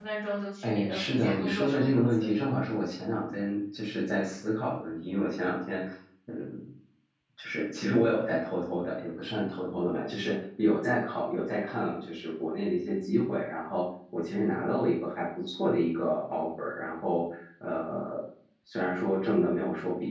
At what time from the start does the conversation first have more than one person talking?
0.6 s

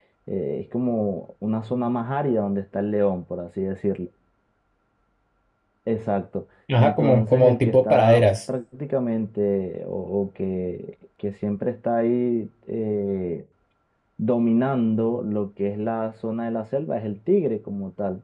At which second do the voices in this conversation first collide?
6.7 s

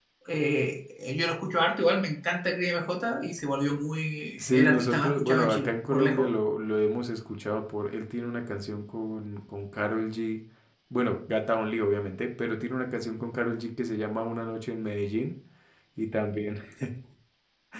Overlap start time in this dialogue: 4.4 s

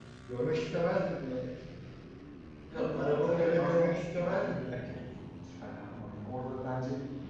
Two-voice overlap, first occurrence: 2.9 s

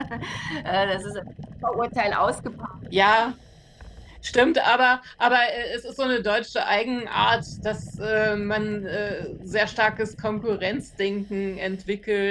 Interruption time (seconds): none

